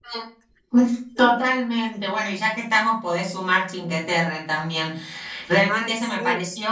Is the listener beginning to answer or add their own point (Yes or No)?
No